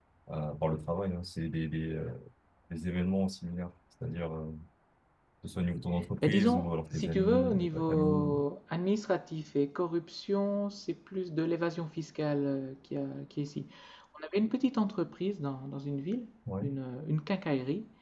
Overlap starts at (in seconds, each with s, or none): 6.2 s